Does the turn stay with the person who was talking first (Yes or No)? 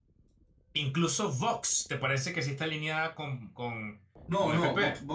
No